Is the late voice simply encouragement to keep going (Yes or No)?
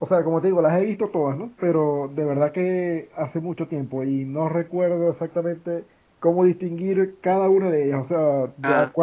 Yes